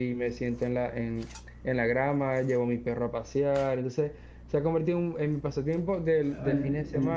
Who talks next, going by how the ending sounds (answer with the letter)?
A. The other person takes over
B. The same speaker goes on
A